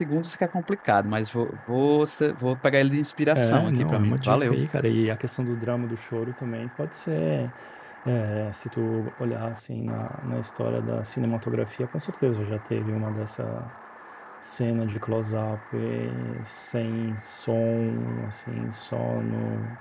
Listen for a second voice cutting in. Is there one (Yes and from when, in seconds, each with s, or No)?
Yes, from 3.4 s